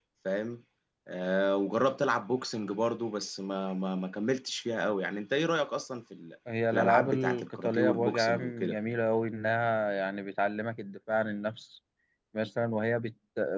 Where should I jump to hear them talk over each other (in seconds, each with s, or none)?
6.7 s